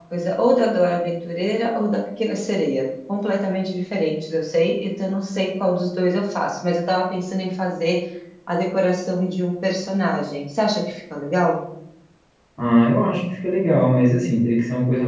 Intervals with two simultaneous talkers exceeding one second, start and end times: none

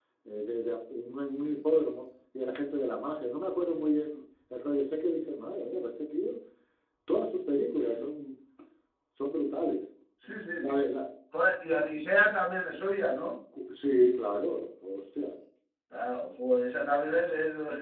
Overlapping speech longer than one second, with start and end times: none

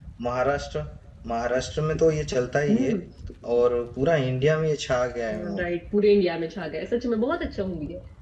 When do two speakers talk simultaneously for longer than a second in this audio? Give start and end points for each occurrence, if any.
none

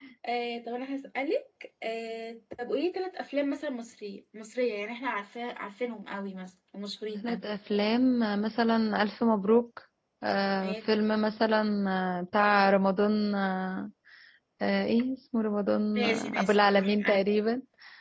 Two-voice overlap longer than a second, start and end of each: 15.9-17.2

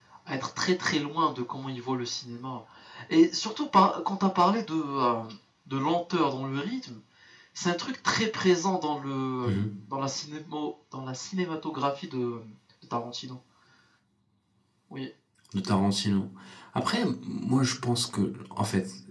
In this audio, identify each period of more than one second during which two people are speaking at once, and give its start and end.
none

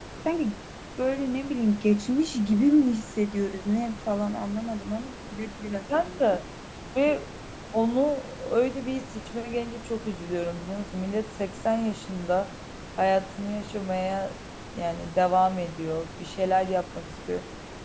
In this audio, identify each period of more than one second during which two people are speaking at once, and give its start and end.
none

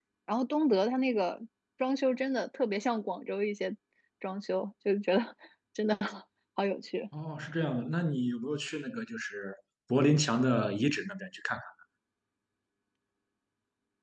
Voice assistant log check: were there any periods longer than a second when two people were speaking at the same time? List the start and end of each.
none

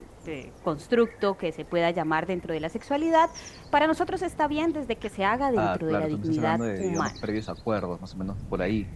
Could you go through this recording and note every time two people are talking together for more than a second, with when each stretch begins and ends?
5.6-7.1

